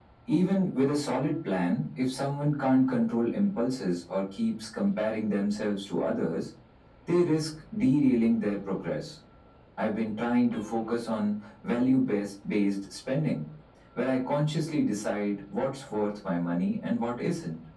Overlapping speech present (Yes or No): No